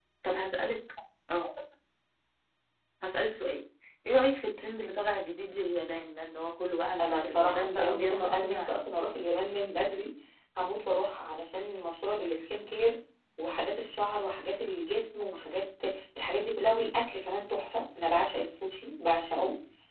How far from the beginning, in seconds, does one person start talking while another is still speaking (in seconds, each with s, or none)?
7.0 s